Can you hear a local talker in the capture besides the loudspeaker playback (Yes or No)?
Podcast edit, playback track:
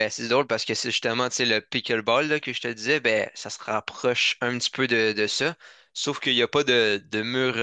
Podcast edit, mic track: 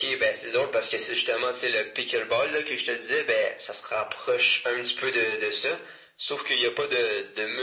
No